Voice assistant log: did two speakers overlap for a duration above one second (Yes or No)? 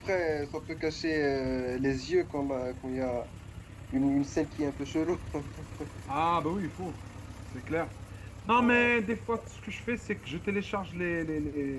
No